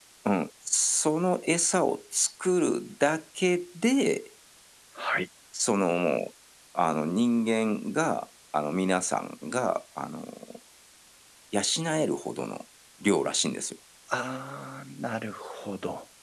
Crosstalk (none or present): none